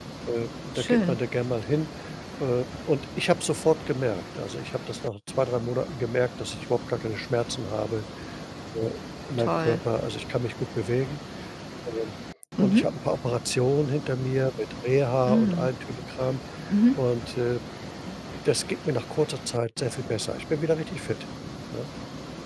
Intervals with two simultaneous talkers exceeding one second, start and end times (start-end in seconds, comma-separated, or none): none